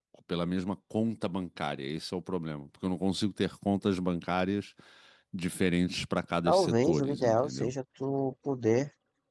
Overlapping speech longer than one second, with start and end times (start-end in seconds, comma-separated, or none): 6.5-7.7